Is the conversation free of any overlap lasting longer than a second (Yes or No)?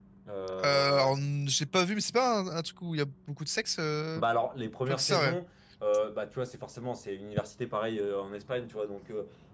Yes